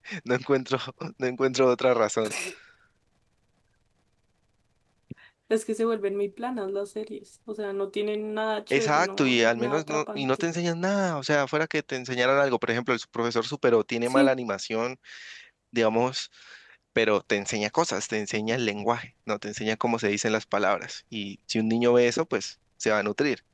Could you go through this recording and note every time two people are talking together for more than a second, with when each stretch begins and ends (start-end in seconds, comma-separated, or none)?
8.7-10.5